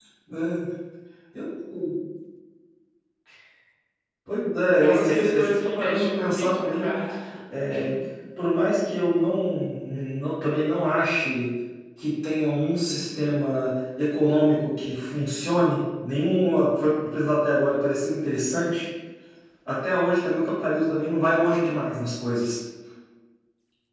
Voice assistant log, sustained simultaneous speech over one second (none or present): present